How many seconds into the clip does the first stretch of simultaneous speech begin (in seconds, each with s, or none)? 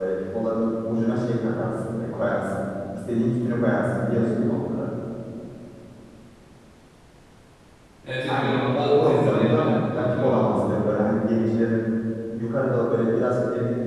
8.3 s